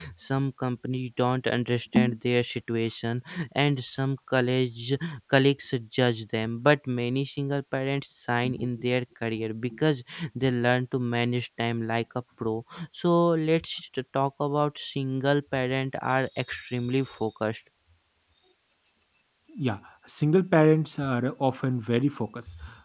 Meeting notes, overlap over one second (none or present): none